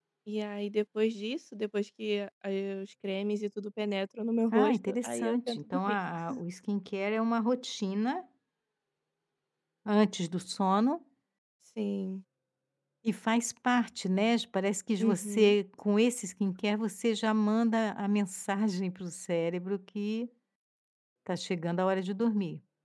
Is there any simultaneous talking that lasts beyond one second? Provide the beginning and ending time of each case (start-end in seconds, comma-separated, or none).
4.5-6.0